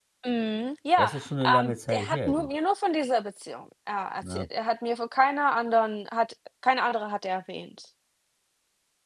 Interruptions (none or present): present